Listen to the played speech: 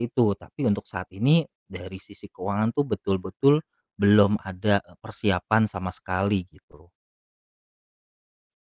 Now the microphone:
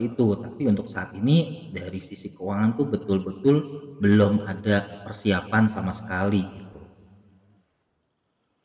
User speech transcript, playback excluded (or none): none